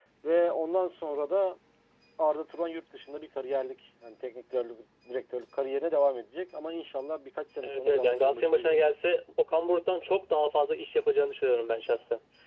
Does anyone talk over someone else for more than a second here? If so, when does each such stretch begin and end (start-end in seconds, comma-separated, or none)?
7.6-8.9